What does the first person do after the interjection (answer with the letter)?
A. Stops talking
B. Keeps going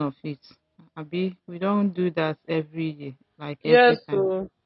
A